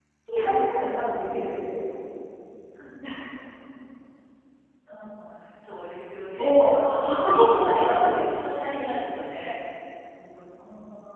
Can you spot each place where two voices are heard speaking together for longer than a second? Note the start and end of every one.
6.3-8.1

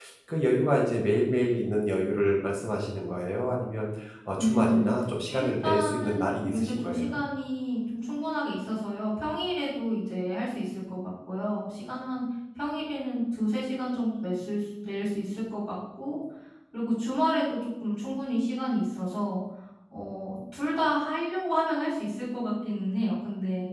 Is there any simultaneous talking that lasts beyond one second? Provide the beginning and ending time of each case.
5.3-7.2

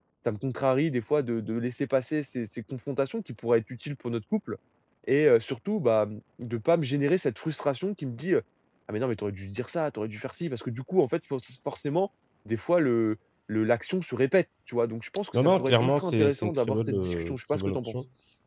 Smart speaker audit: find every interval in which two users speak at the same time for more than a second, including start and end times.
15.3-17.9

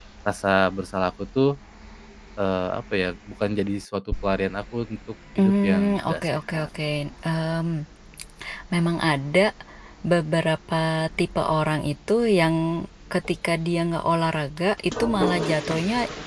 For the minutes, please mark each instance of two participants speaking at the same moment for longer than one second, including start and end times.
5.4-6.7

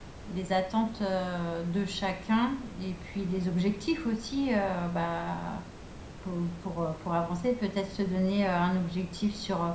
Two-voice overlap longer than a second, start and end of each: none

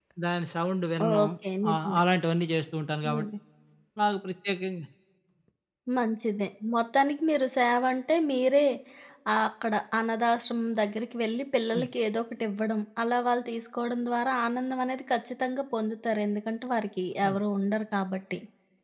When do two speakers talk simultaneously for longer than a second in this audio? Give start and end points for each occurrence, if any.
none

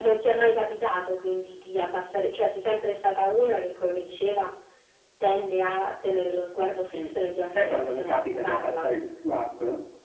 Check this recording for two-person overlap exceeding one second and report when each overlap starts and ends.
7.4-8.9

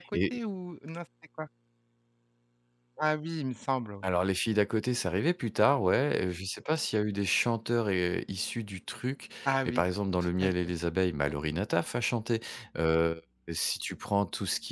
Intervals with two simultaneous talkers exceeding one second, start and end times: none

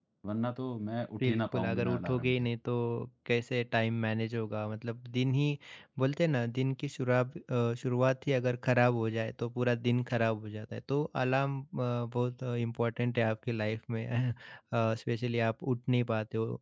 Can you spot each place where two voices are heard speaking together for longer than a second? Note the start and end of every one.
1.2-2.4

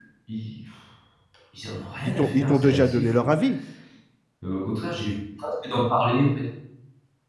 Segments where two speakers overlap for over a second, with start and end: 2.0-3.3

